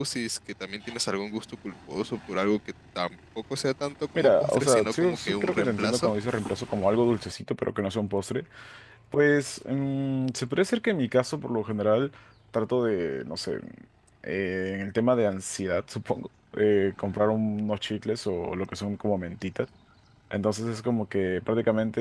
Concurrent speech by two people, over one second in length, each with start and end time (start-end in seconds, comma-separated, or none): 4.2-6.1